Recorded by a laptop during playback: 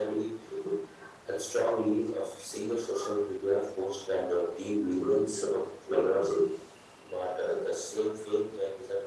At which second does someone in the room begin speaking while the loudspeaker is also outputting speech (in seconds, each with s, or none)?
none